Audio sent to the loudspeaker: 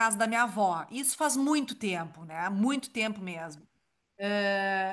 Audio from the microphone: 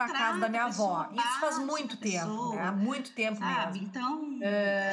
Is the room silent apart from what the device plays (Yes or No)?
No